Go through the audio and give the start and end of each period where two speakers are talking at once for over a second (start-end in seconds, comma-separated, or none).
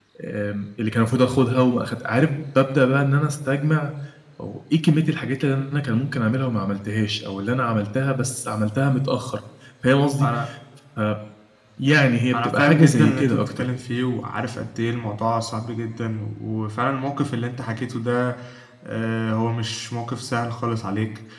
12.3-13.6